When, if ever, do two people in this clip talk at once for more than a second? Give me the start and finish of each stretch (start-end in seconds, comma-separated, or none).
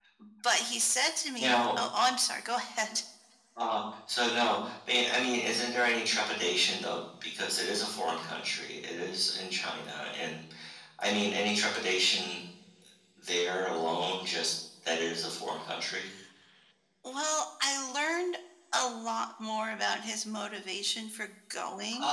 none